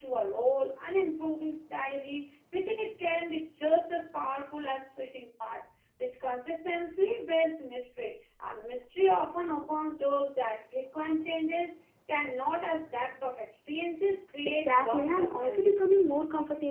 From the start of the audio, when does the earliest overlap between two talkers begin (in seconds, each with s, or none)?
14.4 s